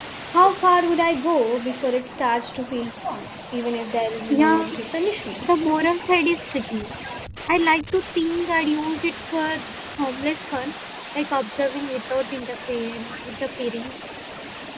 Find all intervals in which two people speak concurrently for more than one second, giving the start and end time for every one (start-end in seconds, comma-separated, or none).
none